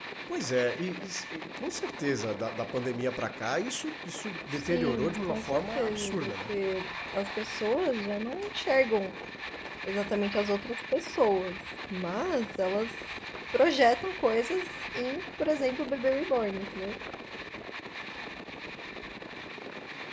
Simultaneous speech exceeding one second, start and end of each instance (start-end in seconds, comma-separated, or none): 4.5-6.5